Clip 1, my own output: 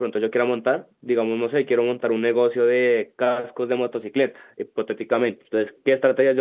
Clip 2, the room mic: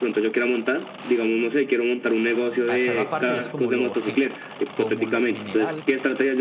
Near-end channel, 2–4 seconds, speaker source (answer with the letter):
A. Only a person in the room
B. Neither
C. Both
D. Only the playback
C